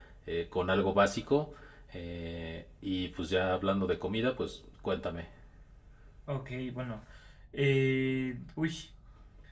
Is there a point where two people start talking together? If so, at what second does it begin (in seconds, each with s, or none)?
none